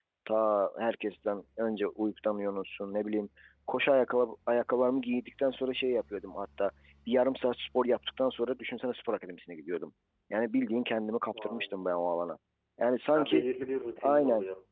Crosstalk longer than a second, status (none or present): none